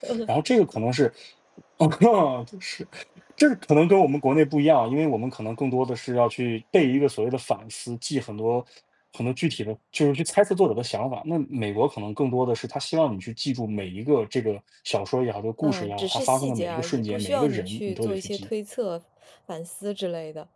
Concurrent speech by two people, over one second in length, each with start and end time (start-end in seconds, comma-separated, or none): 15.6-18.5